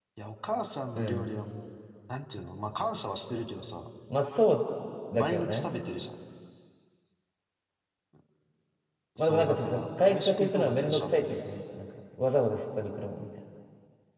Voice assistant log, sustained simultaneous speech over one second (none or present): present